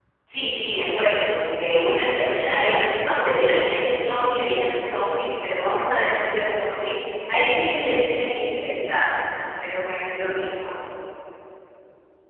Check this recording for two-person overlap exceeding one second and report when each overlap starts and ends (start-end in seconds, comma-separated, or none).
2.6-5.0